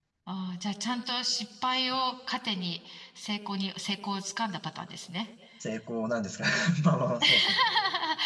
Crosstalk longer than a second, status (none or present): none